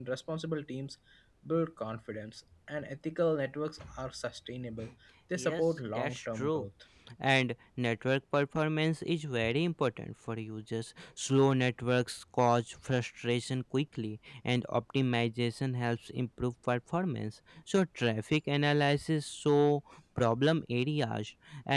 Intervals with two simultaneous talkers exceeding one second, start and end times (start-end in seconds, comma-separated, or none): 5.4-6.7